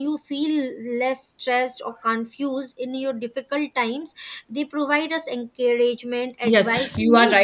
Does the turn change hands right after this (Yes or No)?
Yes